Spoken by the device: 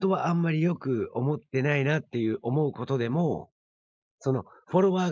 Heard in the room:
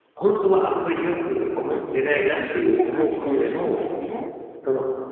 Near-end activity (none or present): present